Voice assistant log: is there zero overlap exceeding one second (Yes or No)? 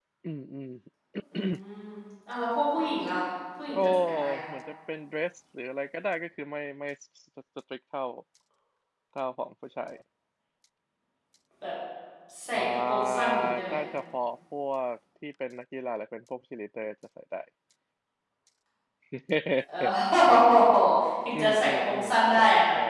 No